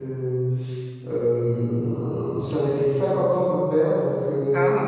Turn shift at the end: No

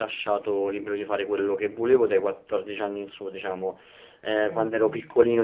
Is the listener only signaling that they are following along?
Yes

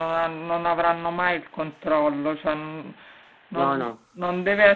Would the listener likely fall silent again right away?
Yes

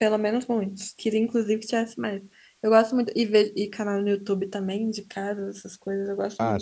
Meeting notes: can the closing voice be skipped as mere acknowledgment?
No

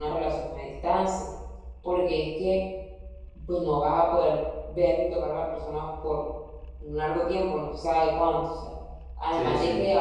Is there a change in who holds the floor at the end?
No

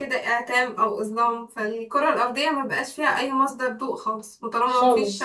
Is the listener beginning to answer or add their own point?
No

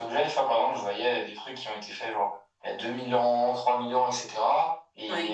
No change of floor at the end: Yes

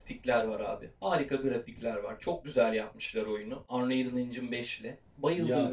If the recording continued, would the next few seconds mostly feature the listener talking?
No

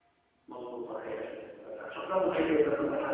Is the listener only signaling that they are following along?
No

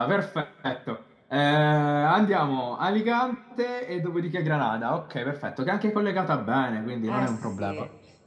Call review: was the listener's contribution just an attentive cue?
No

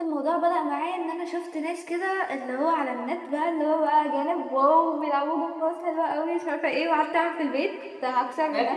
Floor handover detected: Yes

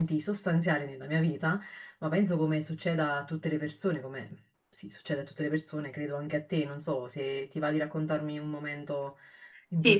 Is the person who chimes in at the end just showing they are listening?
No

